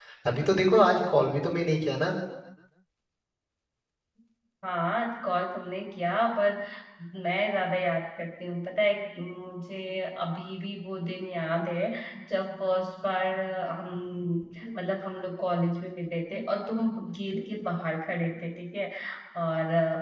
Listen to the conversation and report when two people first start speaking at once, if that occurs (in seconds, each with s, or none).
none